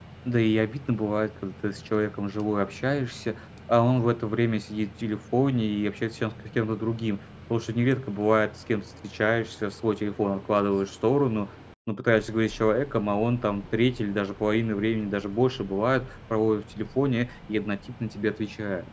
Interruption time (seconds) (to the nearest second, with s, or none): none